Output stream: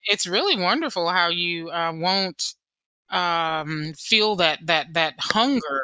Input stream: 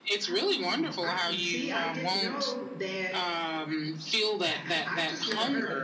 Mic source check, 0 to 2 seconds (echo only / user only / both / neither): both